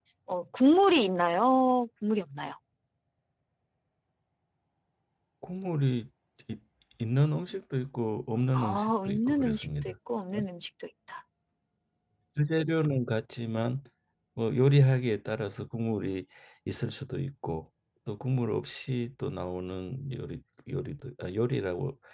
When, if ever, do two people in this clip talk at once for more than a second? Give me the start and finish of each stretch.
8.5-9.9

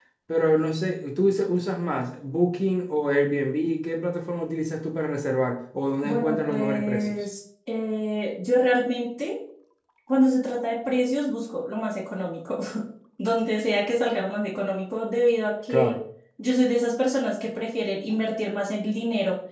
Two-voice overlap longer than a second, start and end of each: 6.0-7.2

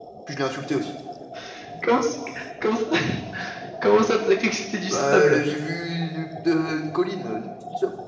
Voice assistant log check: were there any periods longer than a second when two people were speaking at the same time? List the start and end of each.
none

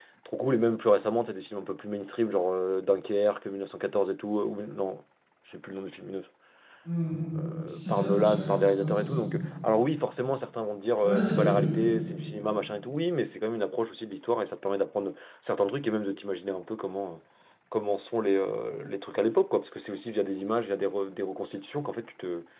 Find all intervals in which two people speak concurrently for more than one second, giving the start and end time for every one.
7.8-9.2

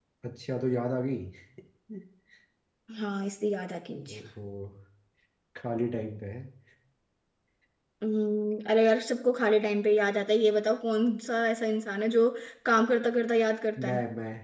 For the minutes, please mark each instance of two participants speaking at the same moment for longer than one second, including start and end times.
none

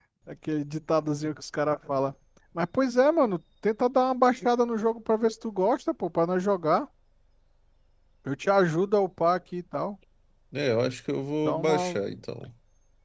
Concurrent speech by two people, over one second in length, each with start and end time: none

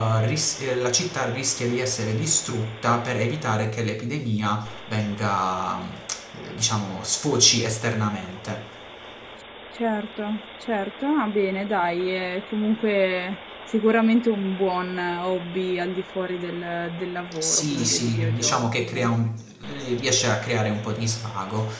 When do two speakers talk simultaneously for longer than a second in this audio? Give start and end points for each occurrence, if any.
17.4-18.9

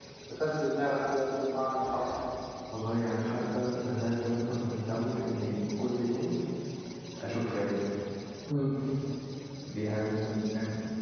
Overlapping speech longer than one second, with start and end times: none

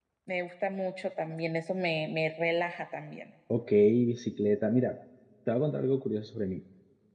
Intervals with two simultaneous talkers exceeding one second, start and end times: none

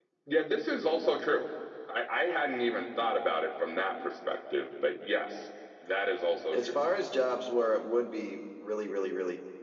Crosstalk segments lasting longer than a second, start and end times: none

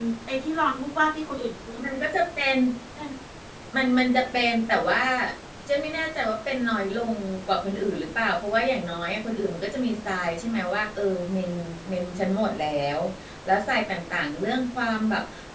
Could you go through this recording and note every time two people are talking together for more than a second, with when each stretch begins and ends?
none

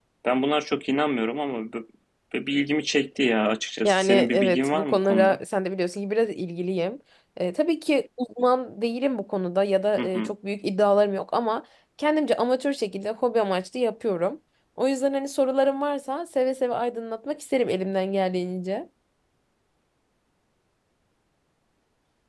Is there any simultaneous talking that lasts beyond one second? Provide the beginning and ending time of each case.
3.8-5.4

